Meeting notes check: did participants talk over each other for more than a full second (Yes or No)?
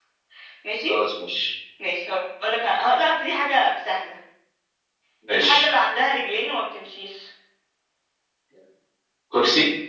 No